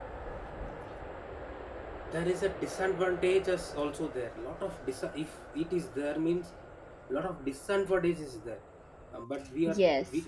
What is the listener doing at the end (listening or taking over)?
listening